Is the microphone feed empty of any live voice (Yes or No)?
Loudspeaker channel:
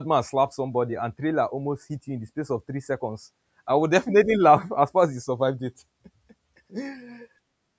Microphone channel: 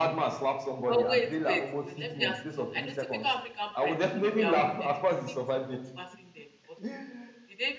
No